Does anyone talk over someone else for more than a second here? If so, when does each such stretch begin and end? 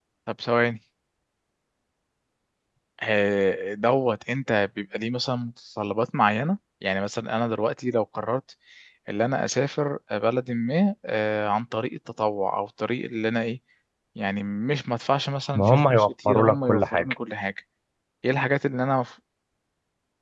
15.5-17.1

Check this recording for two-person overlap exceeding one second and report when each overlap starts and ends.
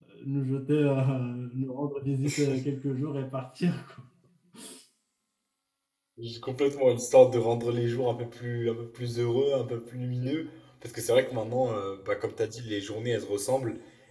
none

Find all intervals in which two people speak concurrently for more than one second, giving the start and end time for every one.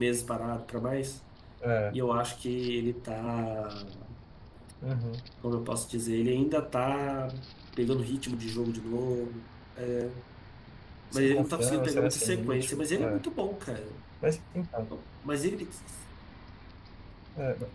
11.1-13.2

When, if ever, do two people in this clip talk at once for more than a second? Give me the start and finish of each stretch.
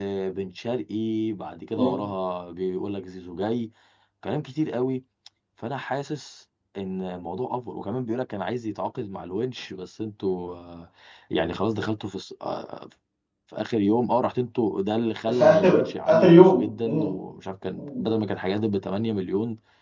15.3-17.1

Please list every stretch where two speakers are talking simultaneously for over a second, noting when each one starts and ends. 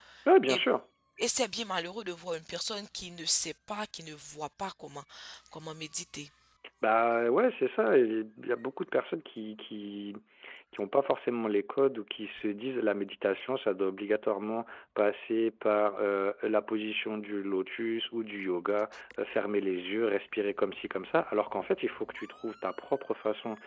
none

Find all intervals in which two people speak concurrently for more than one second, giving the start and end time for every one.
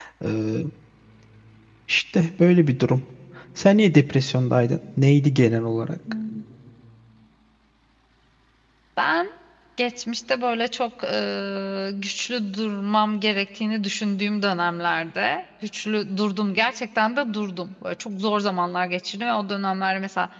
none

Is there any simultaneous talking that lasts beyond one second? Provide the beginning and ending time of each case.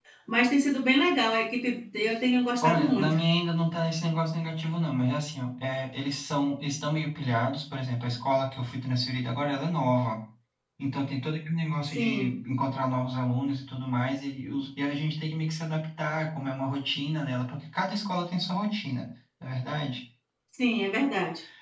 none

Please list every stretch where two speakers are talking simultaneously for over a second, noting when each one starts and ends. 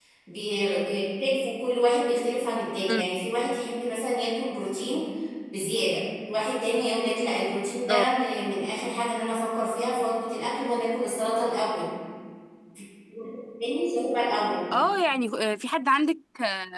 none

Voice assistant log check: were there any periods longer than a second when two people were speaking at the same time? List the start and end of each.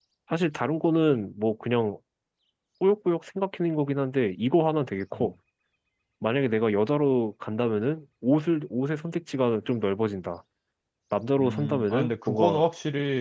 11.4-12.6

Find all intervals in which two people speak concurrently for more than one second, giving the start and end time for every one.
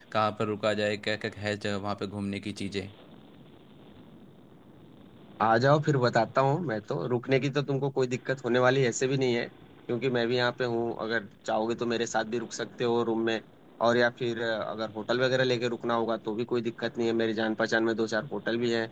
none

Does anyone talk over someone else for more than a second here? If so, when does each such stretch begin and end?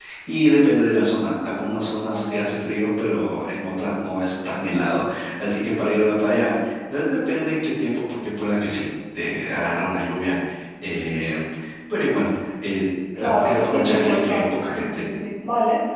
13.2-15.1

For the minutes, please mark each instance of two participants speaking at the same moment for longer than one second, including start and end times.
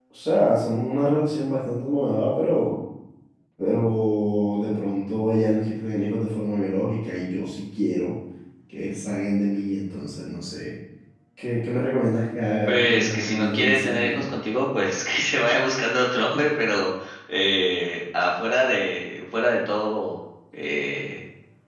12.7-14.2

